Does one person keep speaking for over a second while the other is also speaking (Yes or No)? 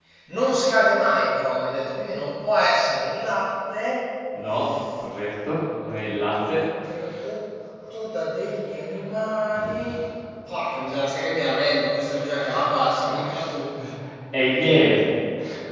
No